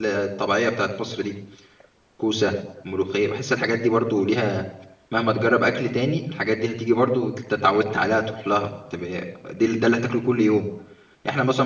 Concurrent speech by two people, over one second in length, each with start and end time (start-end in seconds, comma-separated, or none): none